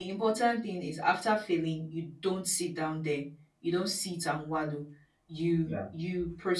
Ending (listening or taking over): listening